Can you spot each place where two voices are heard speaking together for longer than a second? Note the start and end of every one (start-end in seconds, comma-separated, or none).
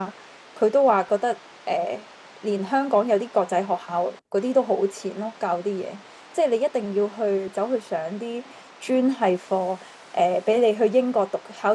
none